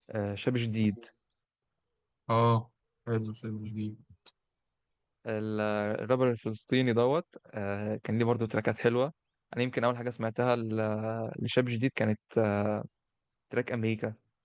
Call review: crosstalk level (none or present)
none